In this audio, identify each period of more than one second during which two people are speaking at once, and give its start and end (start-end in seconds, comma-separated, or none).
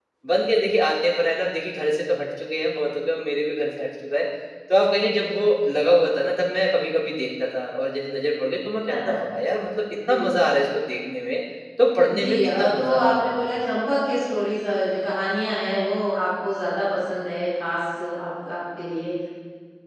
12.2-13.4